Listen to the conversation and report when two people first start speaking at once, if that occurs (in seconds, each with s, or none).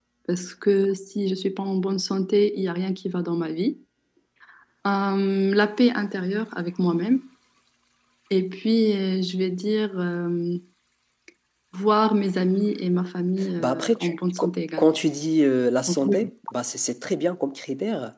13.6 s